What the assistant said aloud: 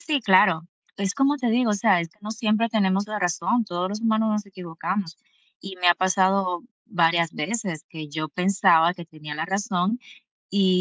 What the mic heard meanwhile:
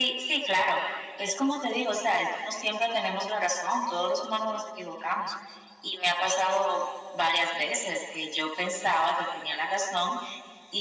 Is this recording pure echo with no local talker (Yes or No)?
Yes